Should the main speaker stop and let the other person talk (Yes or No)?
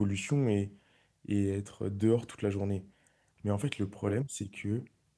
No